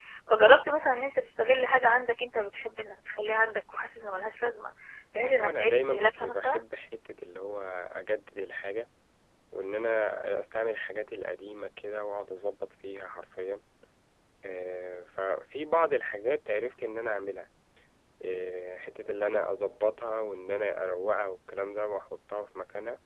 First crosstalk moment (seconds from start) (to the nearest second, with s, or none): 5 s